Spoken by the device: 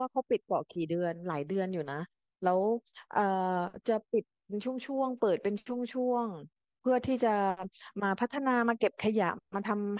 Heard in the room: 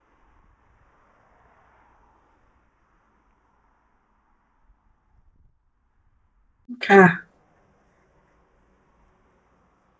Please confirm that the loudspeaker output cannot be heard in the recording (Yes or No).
Yes